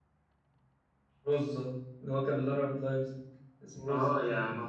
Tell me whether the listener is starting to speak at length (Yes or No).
Yes